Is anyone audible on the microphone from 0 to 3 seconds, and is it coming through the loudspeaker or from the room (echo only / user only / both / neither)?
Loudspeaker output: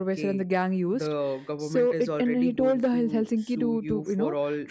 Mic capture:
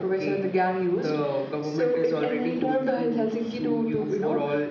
echo only